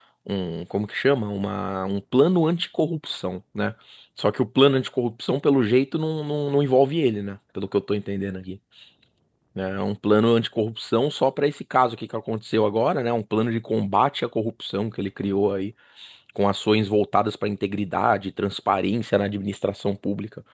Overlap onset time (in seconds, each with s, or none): none